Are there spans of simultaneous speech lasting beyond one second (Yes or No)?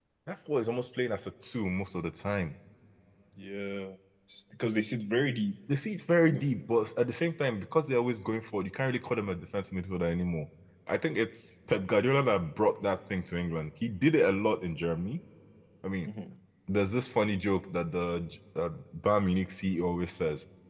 No